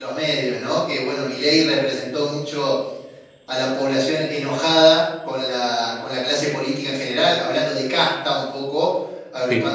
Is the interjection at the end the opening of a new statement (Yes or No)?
No